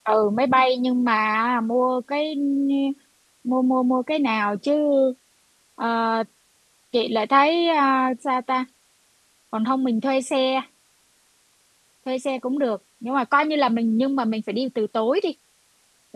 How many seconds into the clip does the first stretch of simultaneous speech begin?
none

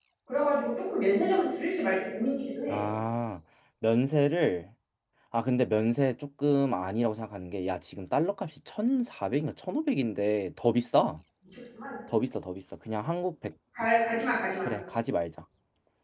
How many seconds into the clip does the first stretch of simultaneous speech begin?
none

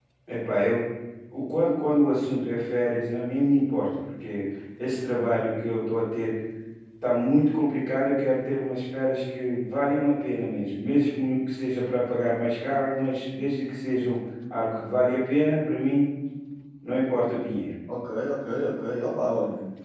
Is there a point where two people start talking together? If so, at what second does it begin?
none

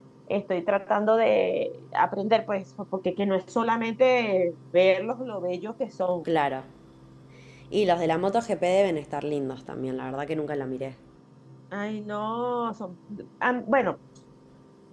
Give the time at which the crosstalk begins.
none

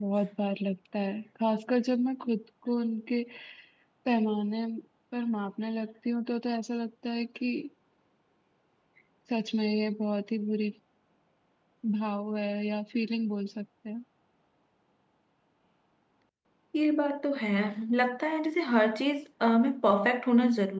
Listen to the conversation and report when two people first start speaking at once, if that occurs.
none

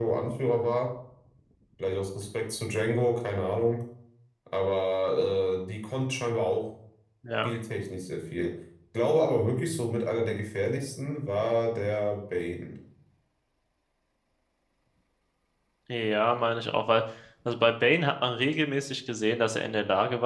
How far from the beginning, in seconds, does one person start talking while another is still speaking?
none

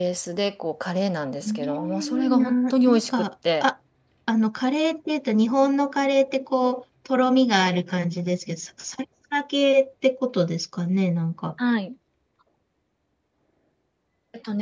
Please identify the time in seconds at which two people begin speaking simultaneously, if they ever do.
1.4 s

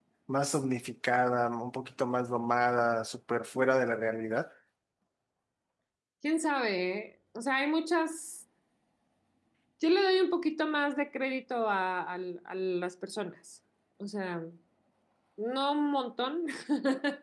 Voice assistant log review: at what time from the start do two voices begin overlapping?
none

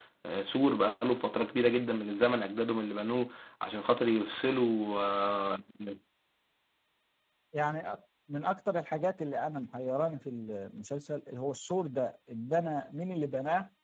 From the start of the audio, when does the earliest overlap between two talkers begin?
none

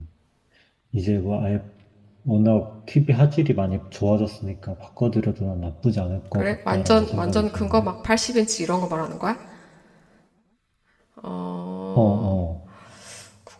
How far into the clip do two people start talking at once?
6.3 s

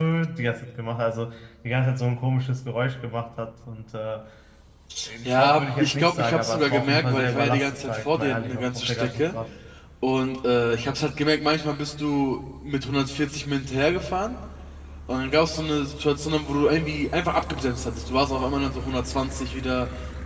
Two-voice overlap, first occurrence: 5.2 s

